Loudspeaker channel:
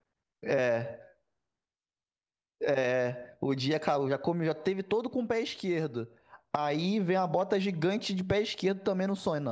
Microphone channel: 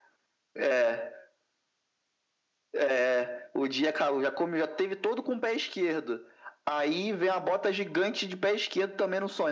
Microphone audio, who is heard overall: echo only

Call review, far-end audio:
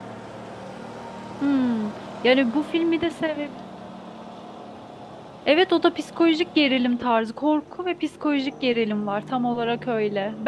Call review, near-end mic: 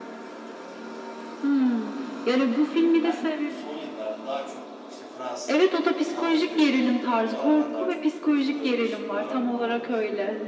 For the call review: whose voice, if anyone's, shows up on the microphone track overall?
both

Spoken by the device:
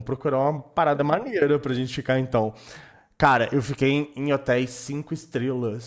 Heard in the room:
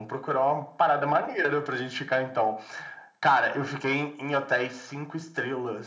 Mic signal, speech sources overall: echo only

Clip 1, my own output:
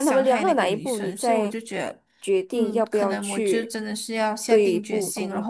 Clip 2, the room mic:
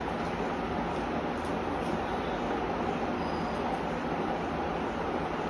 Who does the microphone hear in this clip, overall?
neither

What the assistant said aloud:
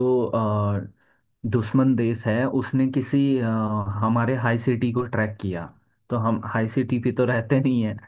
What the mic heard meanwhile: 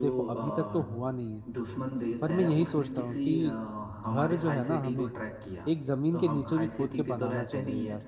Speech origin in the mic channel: both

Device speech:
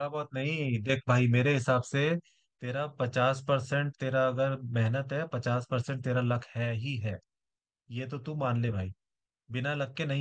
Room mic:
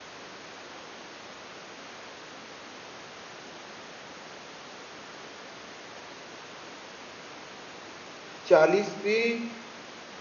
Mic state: user only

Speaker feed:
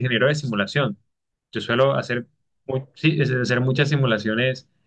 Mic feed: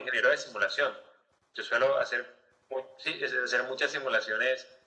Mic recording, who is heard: echo only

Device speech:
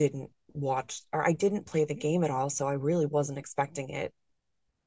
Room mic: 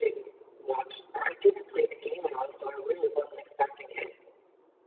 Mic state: echo only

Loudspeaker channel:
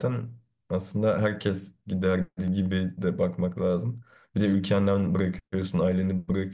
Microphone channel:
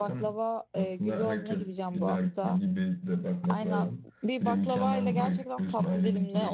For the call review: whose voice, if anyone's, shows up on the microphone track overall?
both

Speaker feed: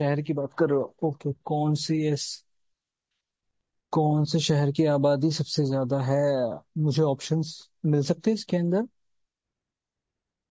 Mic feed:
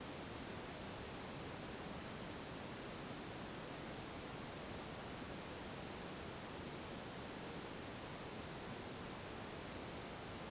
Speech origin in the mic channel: neither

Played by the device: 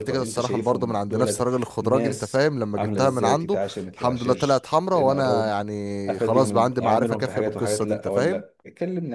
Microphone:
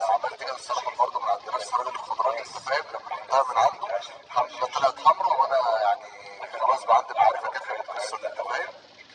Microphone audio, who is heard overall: echo only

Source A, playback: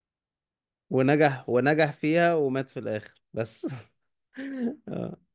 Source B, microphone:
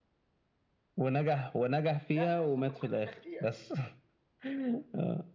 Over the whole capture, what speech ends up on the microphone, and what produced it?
both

